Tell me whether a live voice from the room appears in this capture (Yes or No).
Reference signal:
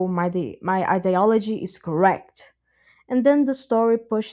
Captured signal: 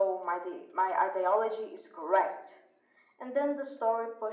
No